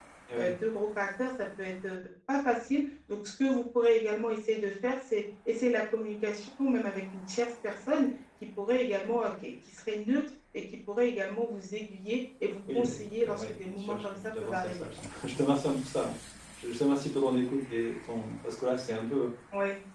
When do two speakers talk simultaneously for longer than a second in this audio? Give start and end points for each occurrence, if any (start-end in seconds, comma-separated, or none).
12.8-14.9